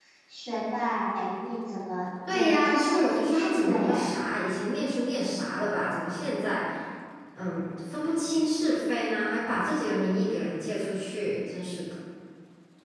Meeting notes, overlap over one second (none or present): present